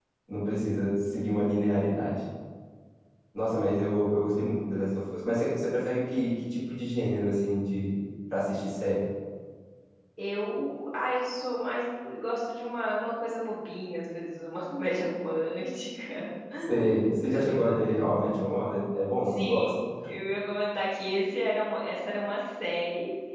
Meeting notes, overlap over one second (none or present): none